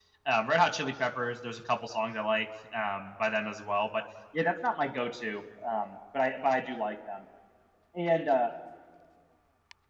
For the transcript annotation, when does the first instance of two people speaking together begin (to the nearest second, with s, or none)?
none